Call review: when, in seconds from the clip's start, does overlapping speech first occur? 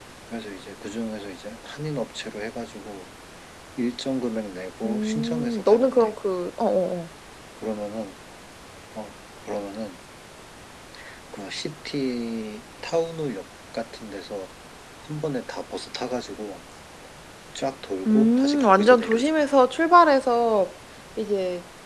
4.8 s

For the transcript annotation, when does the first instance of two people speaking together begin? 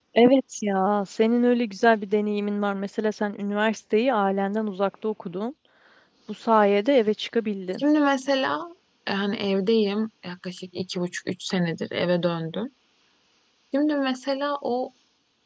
none

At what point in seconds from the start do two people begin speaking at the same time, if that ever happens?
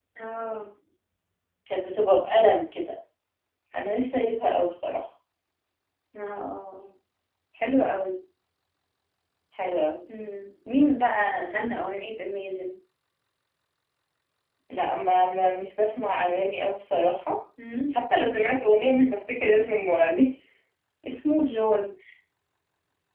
none

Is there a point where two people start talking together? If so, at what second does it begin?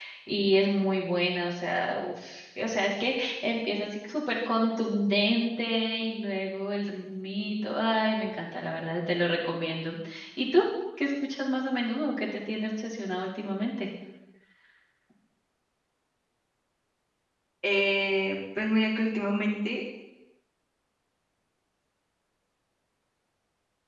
none

